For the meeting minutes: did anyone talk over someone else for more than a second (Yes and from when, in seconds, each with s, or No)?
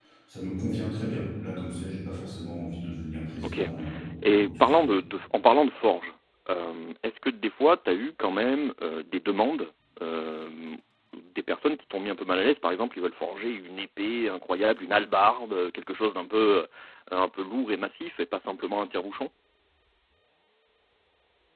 No